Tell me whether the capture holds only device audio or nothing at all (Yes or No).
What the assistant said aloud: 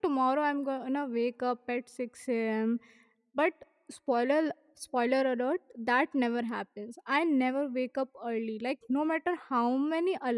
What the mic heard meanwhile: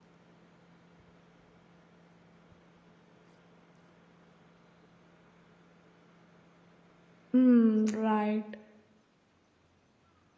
No